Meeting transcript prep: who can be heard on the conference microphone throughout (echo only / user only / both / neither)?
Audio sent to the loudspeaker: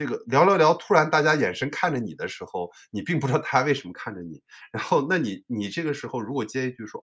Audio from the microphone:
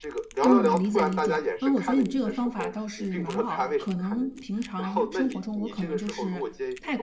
both